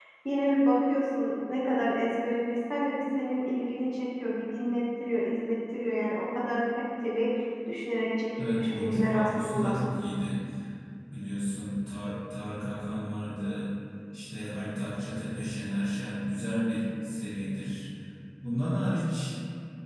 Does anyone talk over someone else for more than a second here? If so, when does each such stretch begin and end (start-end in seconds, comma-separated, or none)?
8.4-9.8